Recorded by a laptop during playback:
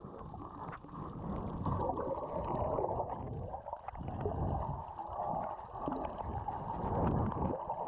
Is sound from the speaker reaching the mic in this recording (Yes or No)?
No